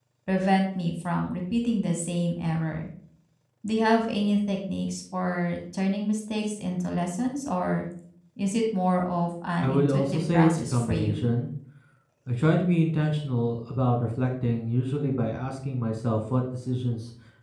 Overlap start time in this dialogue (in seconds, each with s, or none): 9.6 s